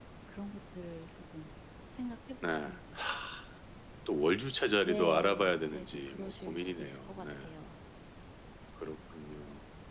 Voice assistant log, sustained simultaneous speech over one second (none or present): present